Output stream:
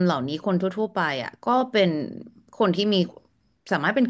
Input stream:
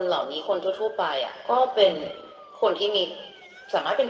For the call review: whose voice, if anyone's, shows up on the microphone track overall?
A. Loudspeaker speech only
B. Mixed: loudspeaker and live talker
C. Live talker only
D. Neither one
B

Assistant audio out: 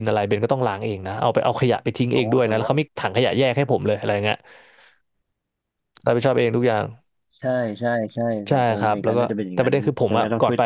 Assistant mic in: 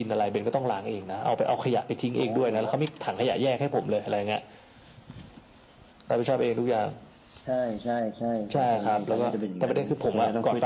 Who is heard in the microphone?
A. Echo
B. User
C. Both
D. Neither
A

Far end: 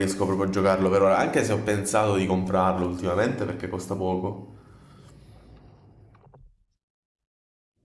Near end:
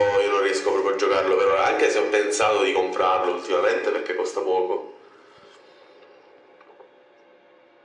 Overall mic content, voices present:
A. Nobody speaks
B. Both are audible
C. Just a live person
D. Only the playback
D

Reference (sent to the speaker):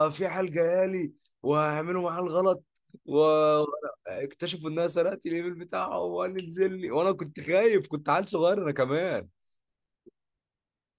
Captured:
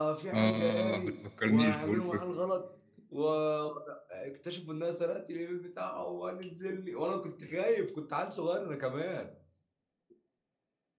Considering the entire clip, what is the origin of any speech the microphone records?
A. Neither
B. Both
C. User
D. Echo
B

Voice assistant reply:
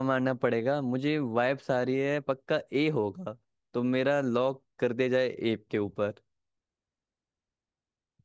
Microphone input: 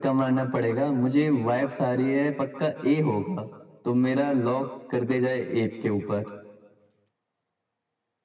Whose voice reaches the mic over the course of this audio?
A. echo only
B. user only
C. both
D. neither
A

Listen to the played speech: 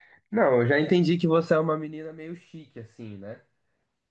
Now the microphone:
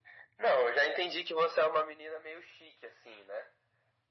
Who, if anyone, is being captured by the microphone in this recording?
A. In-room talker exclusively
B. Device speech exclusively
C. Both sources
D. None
B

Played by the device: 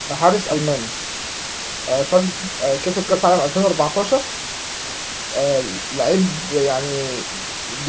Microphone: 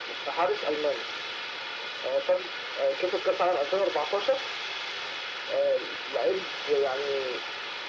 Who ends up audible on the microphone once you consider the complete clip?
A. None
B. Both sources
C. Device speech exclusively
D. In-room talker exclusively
C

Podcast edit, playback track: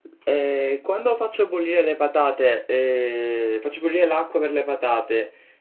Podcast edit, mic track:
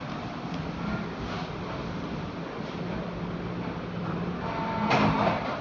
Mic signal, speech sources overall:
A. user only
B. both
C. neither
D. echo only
C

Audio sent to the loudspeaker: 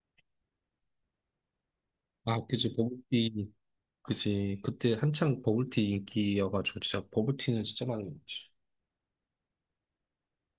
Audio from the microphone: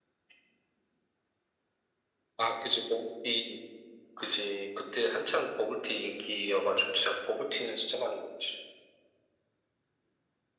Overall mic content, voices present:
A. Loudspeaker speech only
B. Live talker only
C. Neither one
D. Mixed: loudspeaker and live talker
A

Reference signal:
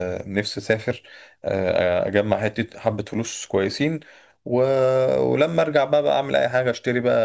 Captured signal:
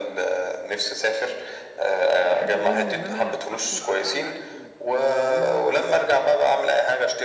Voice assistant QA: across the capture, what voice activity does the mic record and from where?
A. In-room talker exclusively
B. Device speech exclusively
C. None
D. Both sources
D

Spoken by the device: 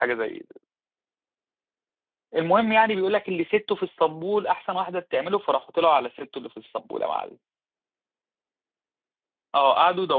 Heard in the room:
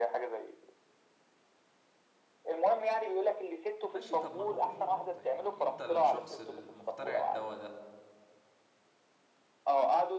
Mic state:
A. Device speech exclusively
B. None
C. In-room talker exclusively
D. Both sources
D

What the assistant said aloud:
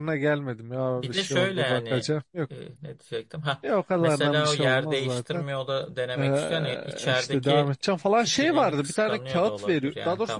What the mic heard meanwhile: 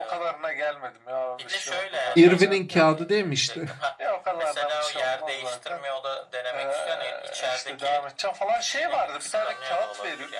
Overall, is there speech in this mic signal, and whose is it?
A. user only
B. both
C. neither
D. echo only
B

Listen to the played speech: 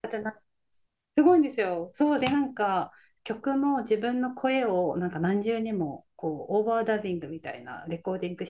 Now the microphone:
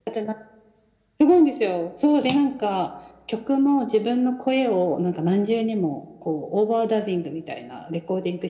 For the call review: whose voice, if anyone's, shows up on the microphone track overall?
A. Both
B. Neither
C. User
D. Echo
D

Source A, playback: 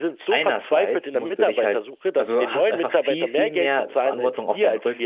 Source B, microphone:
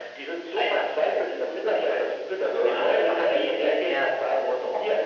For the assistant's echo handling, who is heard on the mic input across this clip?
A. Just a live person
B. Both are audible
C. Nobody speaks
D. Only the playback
D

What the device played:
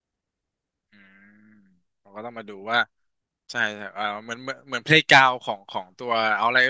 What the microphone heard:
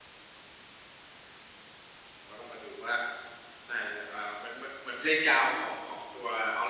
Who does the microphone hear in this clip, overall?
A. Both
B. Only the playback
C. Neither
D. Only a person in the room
B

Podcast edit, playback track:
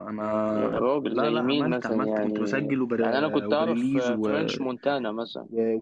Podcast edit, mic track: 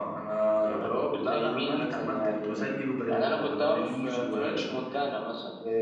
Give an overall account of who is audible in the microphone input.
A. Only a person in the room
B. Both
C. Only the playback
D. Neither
C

